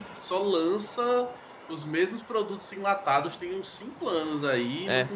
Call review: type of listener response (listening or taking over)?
listening